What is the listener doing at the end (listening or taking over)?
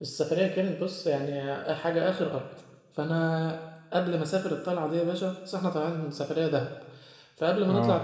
listening